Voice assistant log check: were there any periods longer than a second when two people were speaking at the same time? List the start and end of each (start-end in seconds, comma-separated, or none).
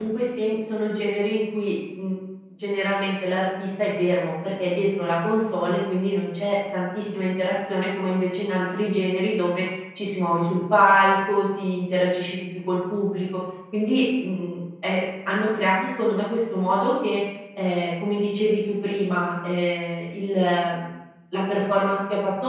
none